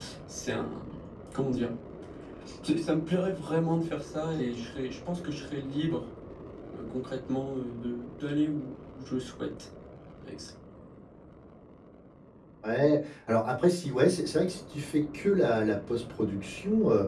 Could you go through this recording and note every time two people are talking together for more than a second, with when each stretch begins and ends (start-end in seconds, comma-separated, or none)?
none